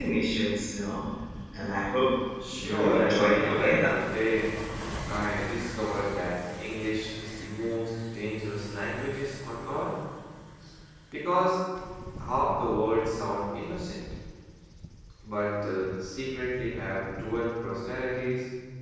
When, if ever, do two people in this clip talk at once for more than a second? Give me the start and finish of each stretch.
2.6-4.0

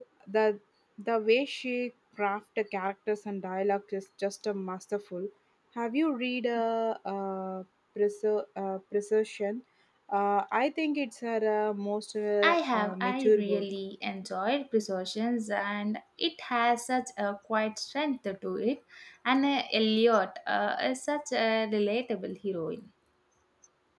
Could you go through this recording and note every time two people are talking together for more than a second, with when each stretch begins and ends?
12.4-13.7

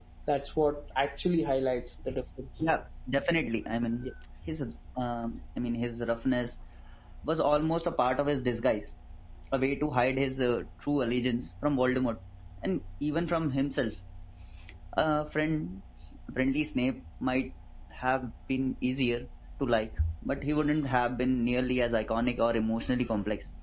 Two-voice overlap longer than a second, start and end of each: none

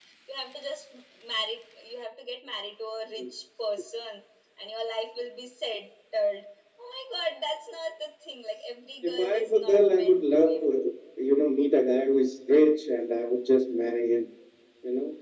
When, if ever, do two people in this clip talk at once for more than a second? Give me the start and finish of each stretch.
9.0-10.7

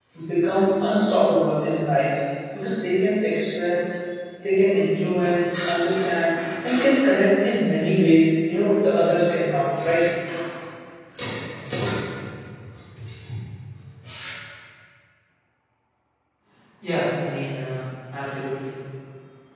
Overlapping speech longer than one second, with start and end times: none

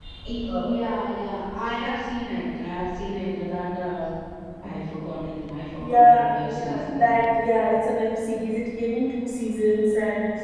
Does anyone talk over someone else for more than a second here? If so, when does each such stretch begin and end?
5.8-7.2

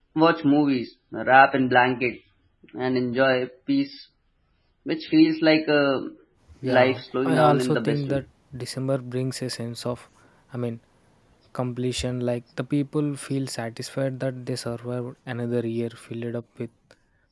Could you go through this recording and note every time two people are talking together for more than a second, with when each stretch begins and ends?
6.8-8.2

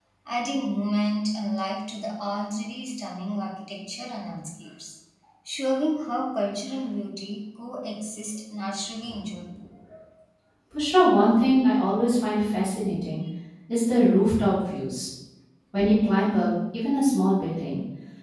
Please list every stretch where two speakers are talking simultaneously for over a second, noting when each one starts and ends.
none

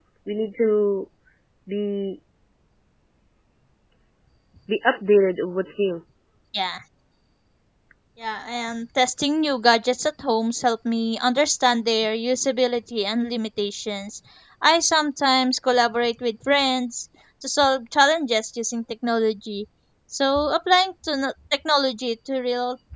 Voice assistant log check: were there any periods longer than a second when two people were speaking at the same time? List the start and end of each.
none

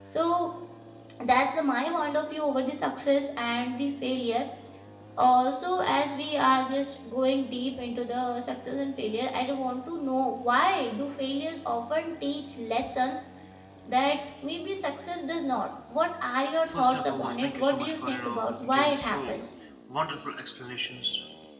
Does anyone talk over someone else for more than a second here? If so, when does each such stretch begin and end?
16.7-19.2

